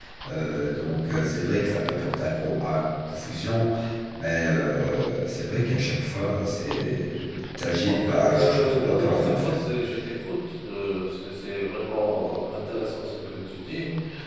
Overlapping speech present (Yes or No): Yes